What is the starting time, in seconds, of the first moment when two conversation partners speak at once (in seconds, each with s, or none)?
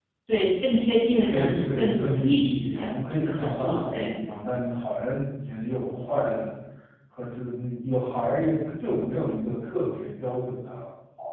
1.2 s